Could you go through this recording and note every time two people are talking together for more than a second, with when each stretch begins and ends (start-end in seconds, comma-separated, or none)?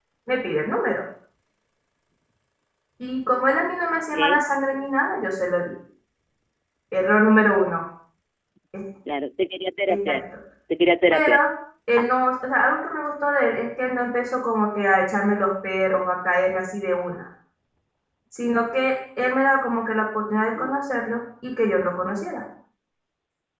none